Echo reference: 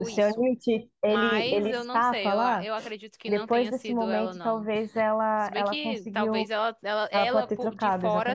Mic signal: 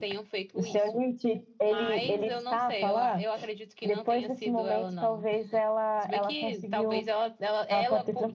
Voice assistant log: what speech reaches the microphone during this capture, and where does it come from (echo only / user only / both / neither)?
echo only